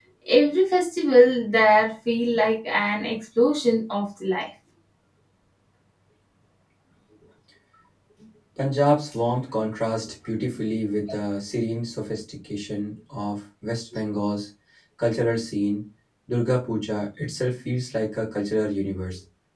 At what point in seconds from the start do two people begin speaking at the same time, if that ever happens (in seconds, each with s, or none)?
none